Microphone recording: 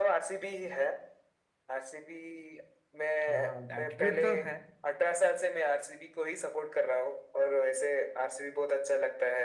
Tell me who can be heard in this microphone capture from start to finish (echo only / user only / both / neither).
both